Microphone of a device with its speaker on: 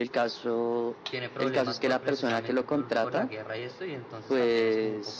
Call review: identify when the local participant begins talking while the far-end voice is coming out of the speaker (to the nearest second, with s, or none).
1 s